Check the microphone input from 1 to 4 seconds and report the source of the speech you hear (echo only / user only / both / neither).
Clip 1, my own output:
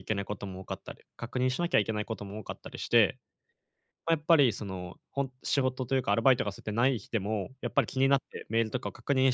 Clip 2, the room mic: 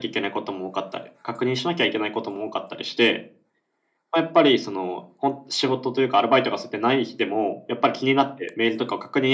echo only